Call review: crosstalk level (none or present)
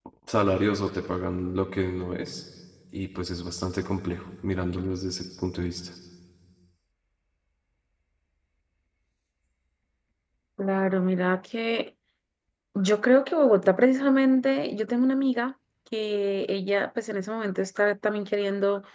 none